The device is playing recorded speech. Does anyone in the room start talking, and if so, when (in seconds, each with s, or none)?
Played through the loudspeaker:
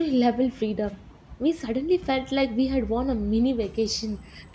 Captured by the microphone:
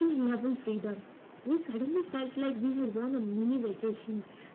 none